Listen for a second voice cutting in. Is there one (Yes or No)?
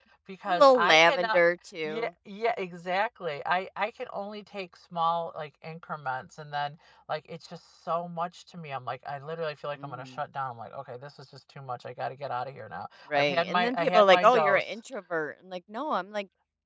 Yes